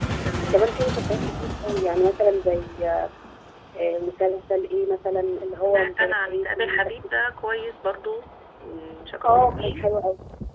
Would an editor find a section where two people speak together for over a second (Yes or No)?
Yes